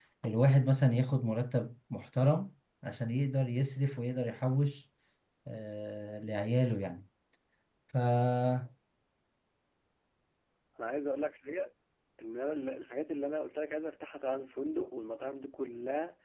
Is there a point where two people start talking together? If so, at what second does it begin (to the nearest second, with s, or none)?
none